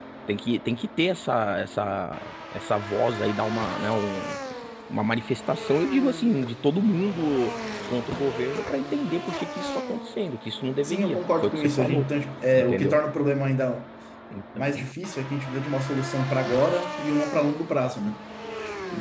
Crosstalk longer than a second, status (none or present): present